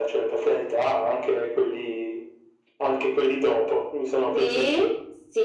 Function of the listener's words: taking over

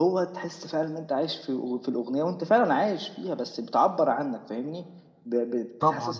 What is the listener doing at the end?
listening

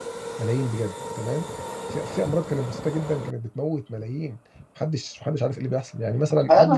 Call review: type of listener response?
taking over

